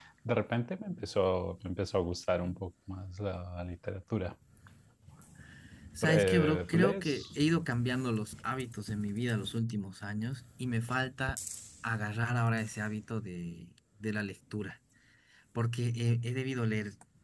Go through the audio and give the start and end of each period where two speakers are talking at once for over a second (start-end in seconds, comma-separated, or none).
6.0-7.2